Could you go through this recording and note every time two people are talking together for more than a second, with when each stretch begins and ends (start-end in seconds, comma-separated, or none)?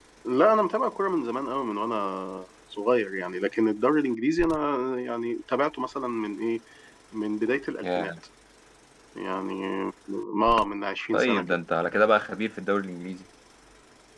none